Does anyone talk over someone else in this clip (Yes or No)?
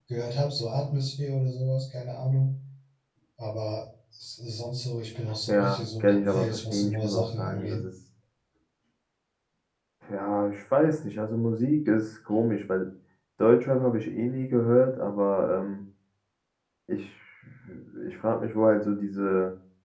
Yes